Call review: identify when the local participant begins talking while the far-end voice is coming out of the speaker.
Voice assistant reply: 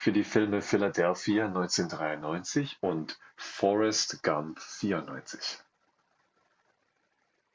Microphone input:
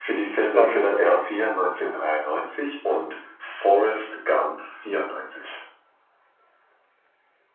0.5 s

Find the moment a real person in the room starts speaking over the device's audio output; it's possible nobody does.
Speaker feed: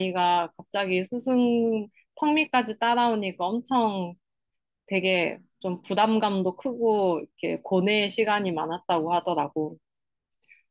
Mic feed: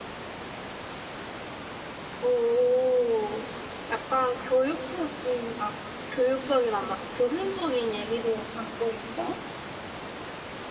2.2 s

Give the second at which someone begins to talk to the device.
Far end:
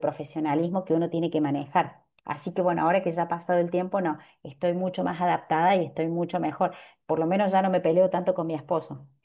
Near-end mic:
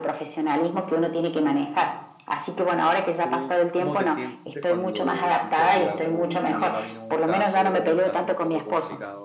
3.2 s

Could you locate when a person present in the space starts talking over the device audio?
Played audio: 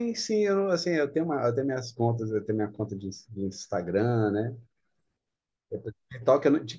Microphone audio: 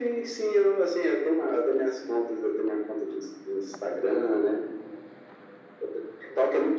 none

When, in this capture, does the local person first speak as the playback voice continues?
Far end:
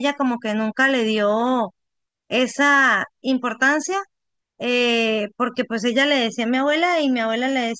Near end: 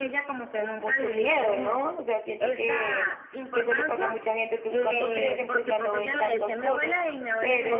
0.8 s

